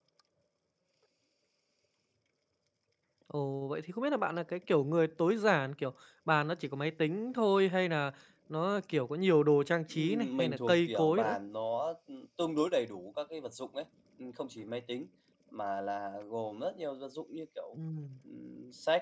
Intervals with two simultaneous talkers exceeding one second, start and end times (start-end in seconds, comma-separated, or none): 9.9-11.4